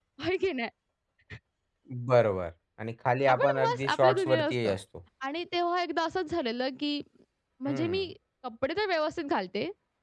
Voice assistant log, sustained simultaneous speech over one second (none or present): present